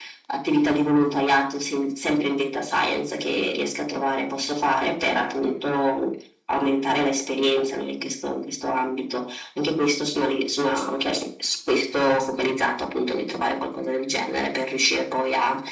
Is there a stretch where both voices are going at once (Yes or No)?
No